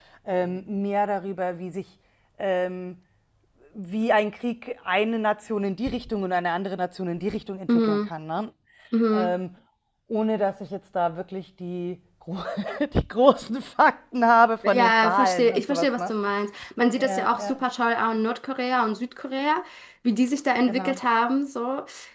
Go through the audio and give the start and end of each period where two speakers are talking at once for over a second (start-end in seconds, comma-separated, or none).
14.6-16.1